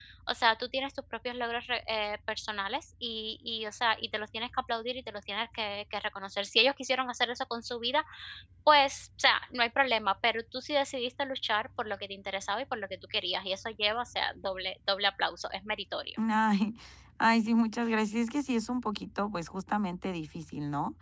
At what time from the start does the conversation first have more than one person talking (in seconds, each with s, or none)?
none